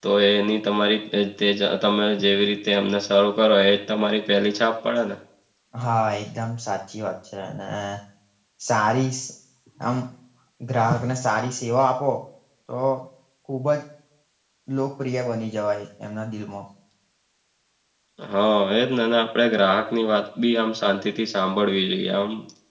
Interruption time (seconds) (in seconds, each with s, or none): none